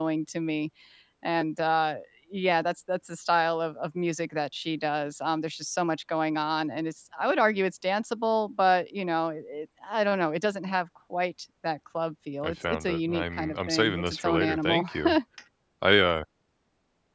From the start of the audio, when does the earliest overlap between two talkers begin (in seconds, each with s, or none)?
12.4 s